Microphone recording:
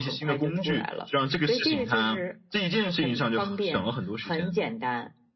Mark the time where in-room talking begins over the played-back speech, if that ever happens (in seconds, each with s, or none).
none